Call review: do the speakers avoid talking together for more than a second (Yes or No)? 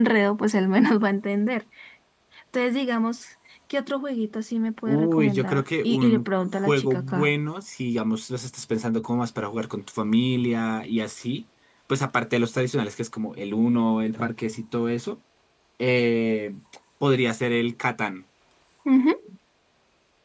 No